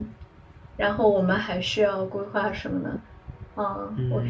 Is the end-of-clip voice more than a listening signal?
Yes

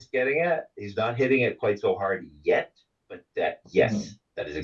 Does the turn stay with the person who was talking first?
Yes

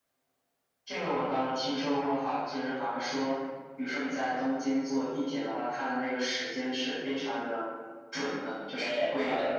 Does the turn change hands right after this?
Yes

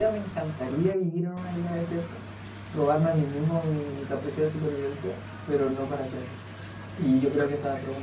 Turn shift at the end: No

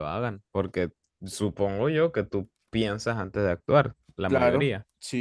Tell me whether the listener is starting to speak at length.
Yes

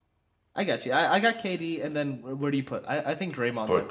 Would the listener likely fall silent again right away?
No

